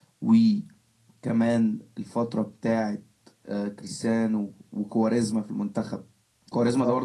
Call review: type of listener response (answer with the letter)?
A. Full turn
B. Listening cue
B